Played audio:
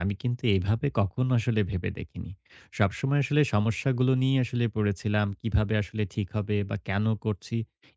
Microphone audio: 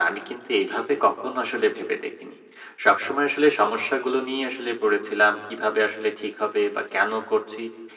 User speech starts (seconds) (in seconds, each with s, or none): none